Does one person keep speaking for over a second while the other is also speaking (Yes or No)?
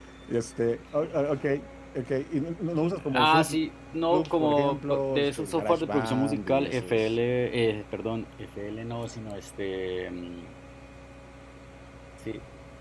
Yes